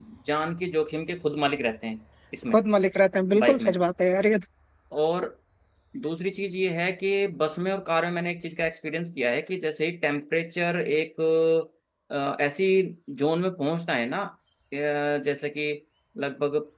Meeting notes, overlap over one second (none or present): none